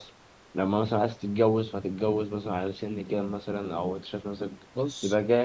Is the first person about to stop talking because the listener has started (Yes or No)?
Yes